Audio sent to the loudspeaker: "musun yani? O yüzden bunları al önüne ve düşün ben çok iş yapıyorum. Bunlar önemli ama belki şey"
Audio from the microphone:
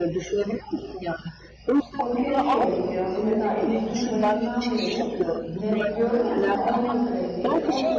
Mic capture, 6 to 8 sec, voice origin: both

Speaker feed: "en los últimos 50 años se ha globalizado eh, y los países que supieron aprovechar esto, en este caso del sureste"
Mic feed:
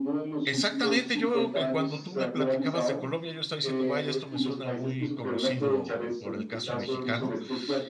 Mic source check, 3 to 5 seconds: both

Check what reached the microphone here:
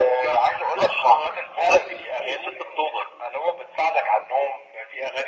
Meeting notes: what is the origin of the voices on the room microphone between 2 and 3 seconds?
echo only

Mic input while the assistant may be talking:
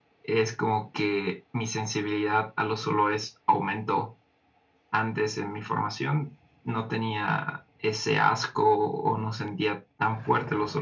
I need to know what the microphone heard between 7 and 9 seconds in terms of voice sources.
echo only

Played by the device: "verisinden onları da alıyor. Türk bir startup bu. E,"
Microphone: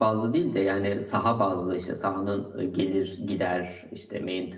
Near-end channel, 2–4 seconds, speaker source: user only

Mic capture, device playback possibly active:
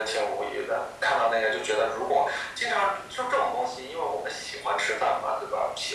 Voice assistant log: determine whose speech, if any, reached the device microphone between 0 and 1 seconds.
echo only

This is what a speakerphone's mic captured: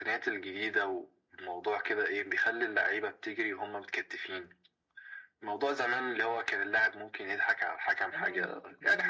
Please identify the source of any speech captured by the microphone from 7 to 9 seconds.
both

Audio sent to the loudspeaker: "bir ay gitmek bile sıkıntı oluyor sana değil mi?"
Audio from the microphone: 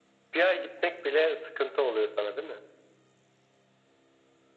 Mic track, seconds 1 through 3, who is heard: echo only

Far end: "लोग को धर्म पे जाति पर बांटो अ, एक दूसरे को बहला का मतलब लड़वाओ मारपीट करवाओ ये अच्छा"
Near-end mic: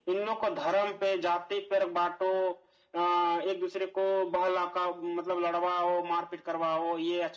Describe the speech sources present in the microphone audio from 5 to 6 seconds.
echo only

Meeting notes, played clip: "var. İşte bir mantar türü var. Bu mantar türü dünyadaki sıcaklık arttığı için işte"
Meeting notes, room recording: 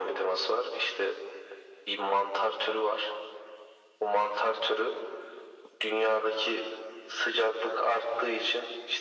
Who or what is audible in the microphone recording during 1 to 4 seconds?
echo only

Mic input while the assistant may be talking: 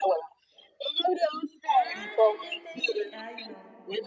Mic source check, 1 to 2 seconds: both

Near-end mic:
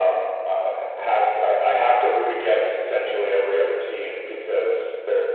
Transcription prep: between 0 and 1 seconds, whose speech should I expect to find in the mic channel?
echo only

